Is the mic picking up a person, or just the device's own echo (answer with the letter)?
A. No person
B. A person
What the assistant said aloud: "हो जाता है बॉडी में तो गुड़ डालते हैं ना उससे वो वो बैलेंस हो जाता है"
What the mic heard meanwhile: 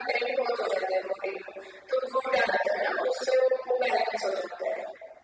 A